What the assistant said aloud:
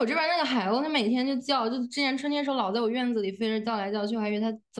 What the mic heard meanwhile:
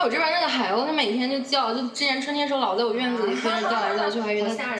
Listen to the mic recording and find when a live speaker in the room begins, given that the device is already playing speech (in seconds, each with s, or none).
2.9 s